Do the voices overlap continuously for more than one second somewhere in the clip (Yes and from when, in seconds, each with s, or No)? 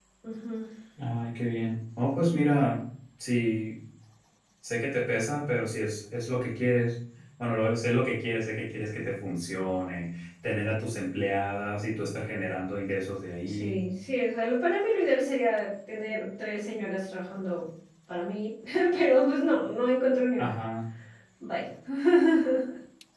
No